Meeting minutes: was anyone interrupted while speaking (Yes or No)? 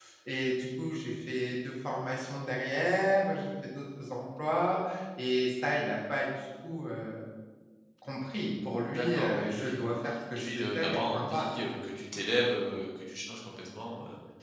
Yes